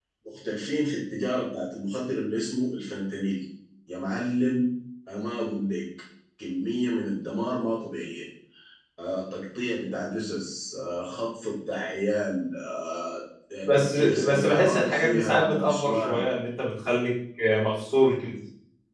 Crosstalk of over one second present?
Yes, from 13.6 s

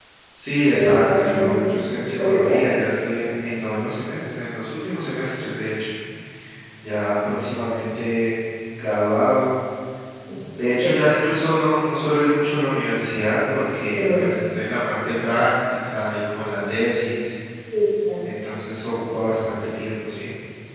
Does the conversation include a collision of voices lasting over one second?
Yes, from 0.7 s

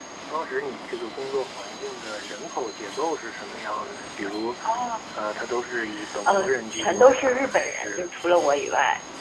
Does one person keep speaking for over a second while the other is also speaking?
Yes, from 6.3 s

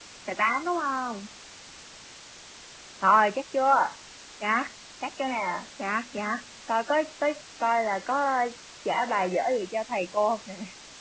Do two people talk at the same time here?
No

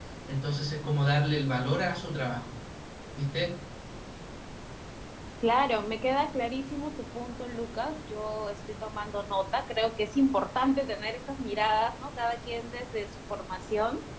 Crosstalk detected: No

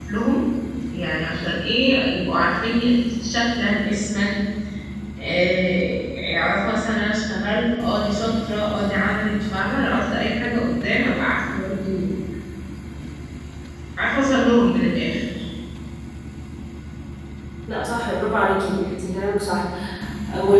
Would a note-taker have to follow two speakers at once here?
No

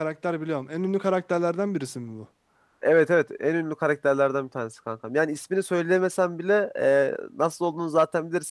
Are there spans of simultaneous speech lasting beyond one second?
No

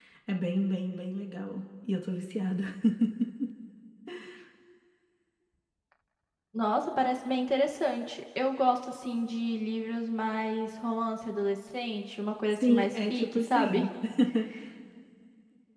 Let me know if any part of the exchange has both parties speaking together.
Yes, from 12.5 s

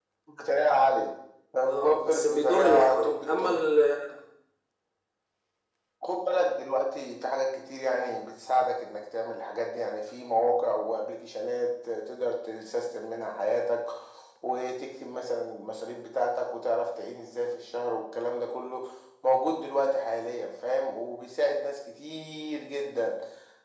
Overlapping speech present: Yes, from 1.7 s

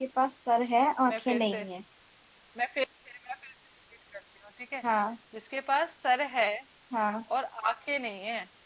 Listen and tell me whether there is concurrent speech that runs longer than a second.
No

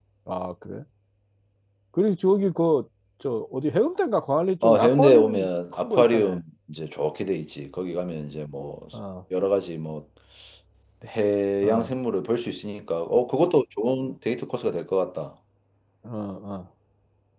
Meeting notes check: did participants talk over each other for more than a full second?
Yes, from 4.6 s

